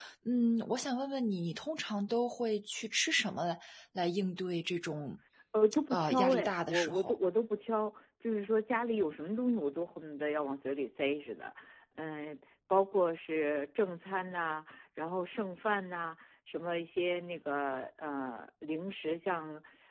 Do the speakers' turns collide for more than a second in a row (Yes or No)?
Yes